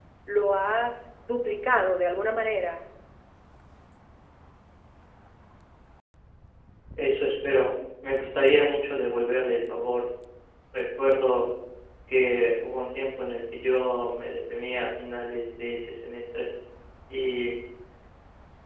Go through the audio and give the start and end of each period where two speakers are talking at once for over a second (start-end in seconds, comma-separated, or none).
none